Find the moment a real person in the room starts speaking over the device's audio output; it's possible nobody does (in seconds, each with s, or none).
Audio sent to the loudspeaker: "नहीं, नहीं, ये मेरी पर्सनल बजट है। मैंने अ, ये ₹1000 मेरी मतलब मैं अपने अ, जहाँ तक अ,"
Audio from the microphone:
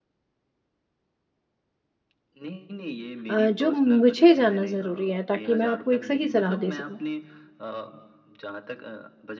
3.3 s